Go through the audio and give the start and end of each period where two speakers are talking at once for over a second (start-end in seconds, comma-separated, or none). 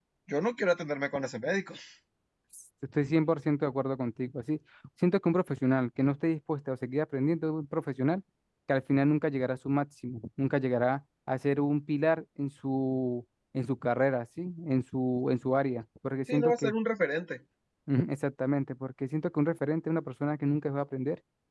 none